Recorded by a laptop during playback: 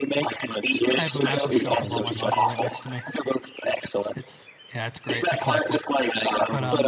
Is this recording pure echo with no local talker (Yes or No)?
No